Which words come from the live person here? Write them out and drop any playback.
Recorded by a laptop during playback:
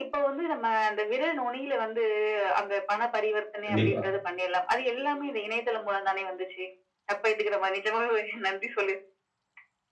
கண்டிப்பா.

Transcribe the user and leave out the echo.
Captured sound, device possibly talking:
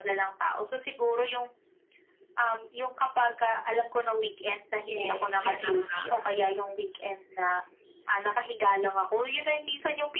Yes yun na nga.

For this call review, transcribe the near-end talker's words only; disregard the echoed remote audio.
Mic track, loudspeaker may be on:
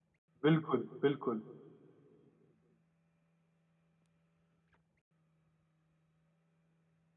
बिल्कुल, बिल्कुल।

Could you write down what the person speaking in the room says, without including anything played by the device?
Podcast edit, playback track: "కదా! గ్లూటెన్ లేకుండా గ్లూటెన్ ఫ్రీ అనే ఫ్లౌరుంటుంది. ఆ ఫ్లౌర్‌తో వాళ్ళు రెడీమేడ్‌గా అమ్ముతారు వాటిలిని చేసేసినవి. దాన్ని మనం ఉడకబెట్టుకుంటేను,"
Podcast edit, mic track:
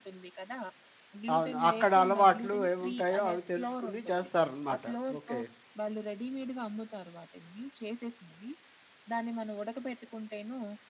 అవును. అక్కడ అలవాట్లు ఏముంటాయో అవి తెలుసుకుని చేస్తారనమాట. ఓకే.

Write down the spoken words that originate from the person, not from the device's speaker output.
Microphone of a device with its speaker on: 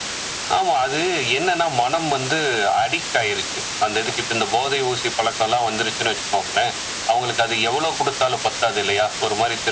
none

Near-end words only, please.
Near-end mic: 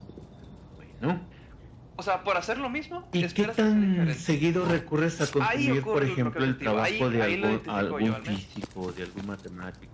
none

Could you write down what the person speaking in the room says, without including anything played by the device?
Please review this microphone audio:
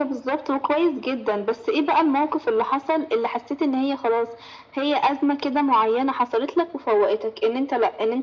none

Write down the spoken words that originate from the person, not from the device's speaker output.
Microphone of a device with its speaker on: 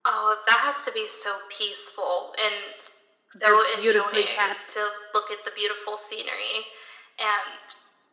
They're beautifully kept.

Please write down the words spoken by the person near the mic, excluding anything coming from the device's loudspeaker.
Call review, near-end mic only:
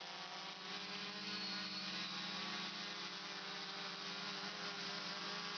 none

